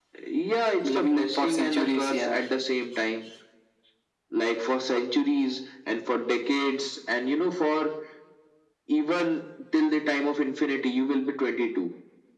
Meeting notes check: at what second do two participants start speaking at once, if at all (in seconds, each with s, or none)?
0.8 s